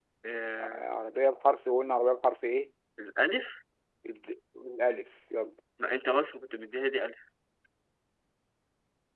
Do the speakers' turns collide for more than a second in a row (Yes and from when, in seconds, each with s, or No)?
No